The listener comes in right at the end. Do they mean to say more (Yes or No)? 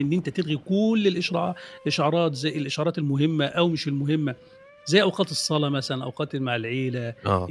No